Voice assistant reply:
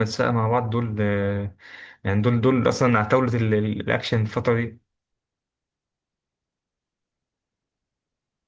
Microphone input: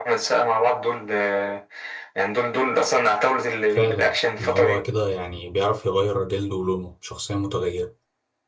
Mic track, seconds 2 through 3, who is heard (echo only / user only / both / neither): echo only